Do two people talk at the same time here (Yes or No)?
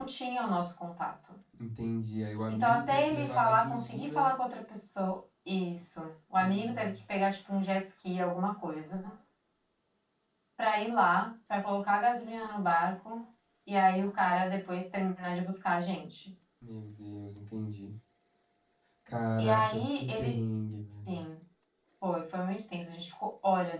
Yes